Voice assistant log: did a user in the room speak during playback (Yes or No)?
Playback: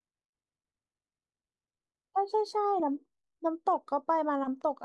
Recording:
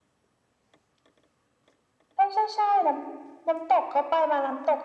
No